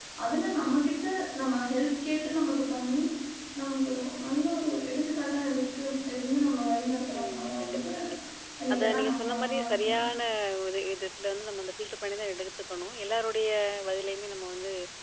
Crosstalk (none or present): present